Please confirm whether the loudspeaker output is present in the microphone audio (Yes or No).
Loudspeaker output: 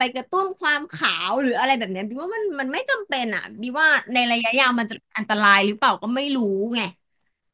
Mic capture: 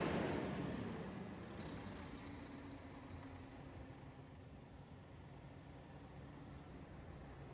No